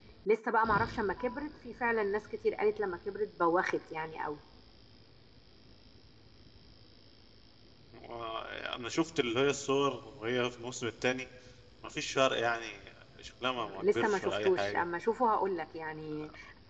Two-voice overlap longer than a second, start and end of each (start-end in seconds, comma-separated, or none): 13.6-14.8